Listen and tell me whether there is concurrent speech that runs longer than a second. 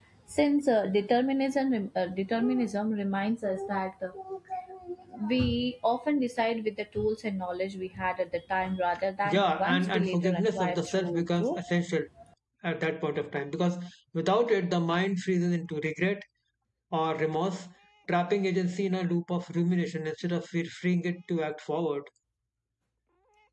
Yes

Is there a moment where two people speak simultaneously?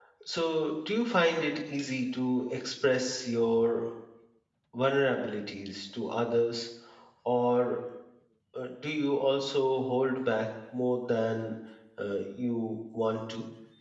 No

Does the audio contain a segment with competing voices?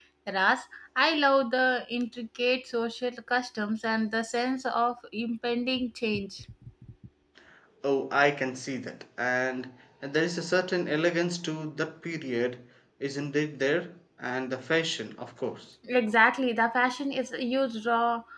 No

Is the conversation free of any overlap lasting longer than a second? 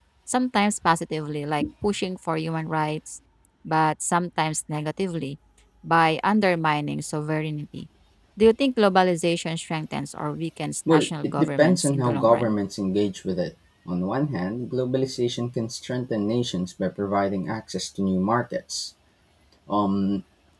No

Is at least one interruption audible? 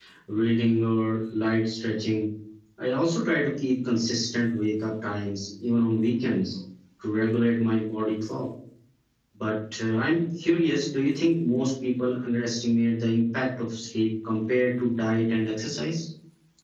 No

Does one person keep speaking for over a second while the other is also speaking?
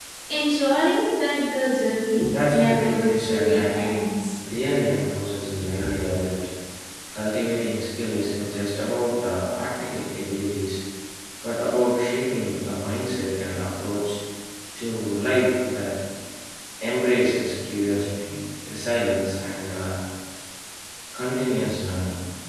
Yes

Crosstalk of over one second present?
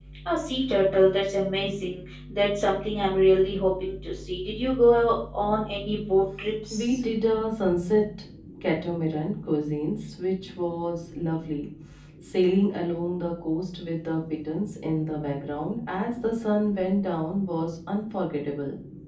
No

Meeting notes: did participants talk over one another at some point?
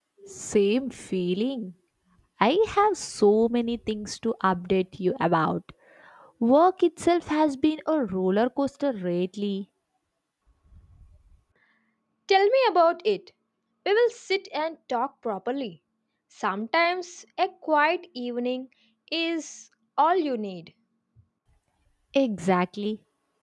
No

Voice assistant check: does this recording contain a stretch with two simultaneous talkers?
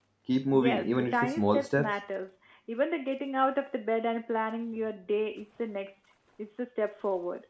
Yes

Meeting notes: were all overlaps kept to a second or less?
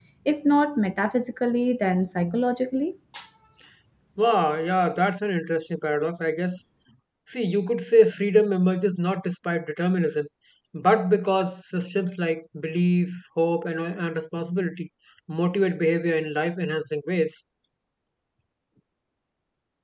Yes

